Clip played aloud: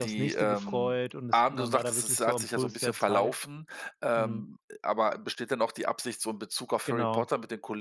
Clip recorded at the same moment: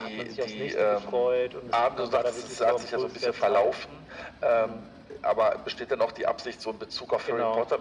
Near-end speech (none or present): none